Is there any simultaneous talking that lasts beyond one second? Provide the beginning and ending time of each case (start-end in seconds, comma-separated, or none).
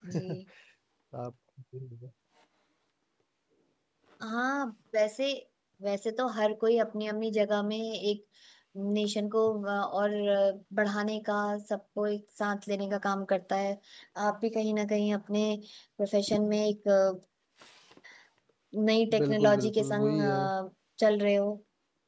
19.2-20.4